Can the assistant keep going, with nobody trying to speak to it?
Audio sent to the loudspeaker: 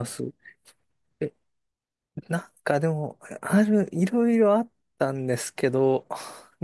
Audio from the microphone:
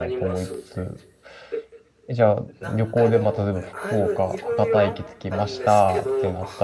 No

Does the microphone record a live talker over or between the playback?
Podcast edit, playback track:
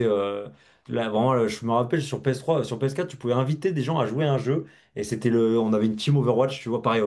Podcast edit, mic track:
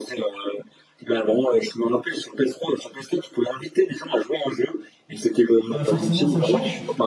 Yes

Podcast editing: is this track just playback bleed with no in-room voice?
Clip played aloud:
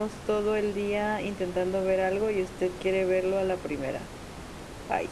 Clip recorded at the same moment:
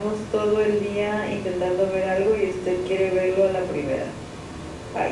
Yes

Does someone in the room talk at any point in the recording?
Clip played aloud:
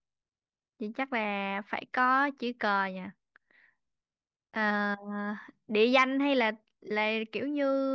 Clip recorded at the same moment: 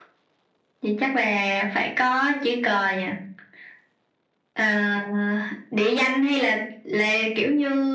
No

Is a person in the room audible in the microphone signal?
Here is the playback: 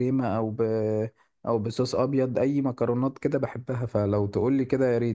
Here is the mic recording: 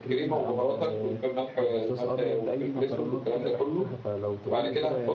Yes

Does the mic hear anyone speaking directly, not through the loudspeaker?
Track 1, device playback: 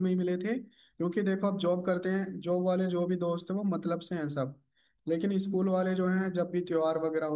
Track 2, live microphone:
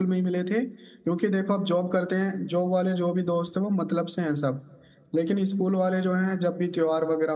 No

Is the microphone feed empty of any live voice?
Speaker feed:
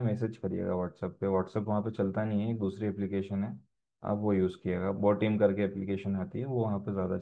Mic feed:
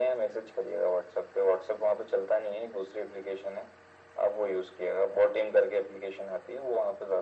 Yes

